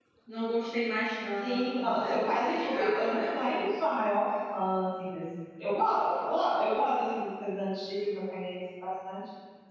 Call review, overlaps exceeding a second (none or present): present